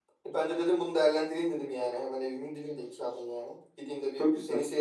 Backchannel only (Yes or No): Yes